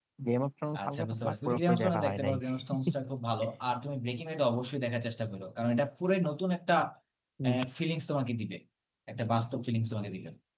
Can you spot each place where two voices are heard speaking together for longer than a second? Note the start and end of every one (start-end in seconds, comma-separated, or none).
0.8-2.4